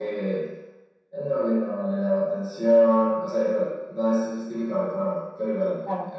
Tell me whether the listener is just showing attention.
Yes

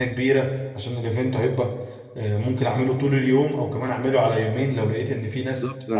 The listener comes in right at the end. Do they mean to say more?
Yes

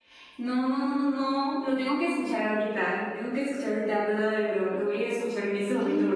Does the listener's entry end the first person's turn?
Yes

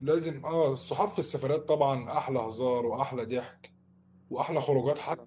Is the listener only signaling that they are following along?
Yes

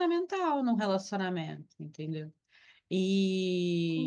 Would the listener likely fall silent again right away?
Yes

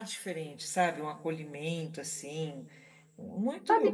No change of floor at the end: No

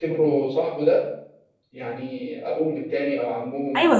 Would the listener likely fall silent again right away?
No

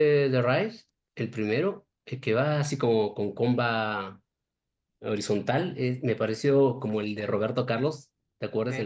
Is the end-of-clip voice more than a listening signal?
Yes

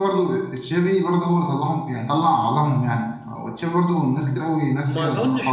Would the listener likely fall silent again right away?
No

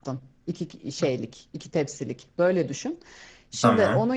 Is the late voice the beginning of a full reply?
No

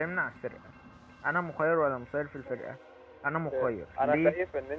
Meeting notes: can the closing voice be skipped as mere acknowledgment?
No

